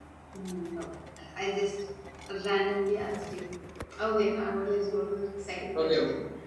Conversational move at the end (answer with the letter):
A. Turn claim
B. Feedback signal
A